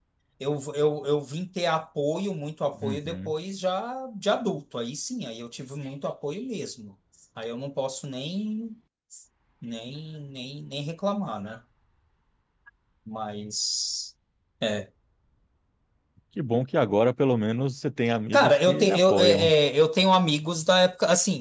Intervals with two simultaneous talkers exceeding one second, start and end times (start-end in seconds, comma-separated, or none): 18.3-19.5